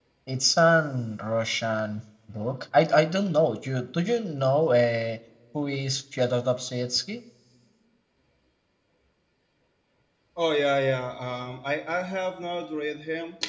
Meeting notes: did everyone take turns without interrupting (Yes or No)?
Yes